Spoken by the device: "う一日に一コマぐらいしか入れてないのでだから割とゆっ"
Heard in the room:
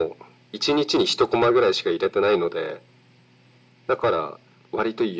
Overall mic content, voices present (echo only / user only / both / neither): echo only